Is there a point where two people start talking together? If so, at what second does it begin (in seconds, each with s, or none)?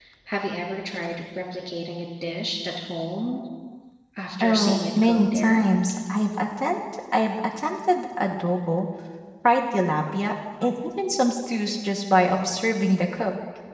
4.4 s